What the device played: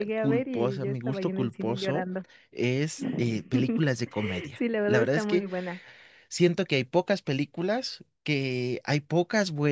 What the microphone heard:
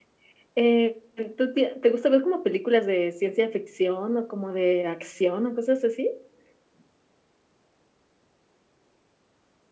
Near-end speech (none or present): present